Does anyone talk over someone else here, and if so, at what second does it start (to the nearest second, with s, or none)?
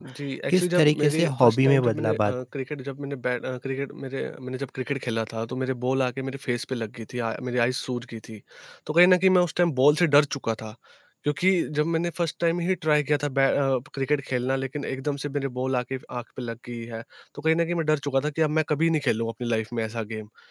1 s